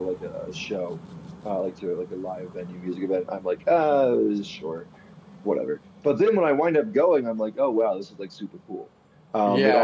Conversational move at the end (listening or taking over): taking over